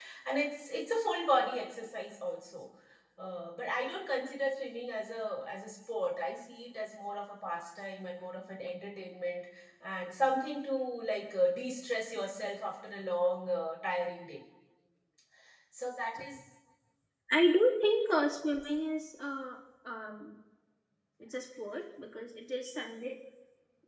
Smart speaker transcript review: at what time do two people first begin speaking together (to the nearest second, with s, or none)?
none